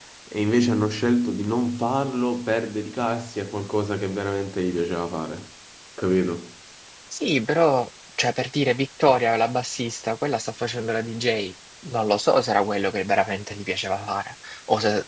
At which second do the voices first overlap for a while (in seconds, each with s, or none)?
none